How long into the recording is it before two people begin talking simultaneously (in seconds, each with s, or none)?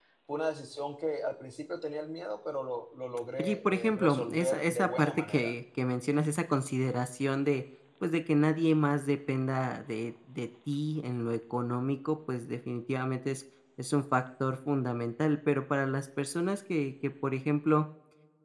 3.4 s